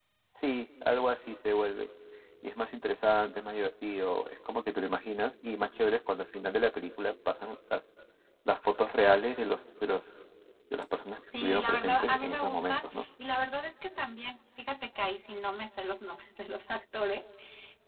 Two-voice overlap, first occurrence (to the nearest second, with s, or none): 11 s